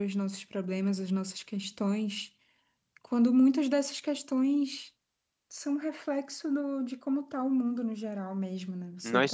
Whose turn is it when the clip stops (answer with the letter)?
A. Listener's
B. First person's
A